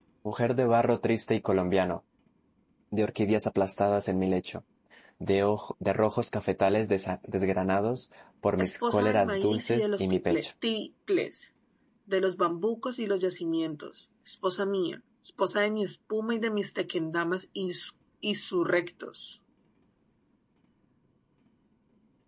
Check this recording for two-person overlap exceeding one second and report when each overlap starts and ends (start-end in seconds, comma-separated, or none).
8.6-10.4